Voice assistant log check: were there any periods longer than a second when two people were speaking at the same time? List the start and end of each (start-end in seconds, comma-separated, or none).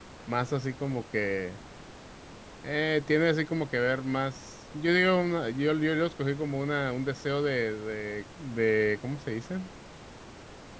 none